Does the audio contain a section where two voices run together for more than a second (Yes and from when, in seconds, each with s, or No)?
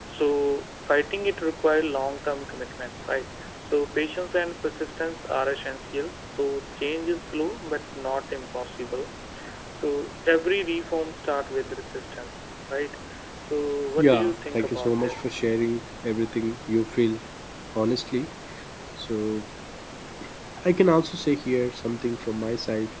Yes, from 14.0 s